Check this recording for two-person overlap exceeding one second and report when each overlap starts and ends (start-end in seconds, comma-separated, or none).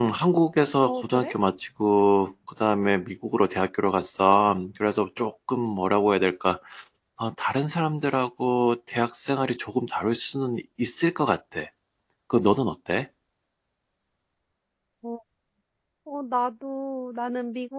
none